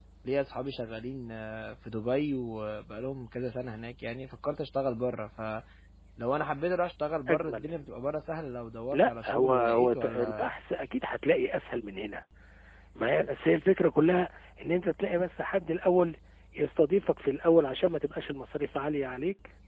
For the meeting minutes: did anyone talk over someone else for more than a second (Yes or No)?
Yes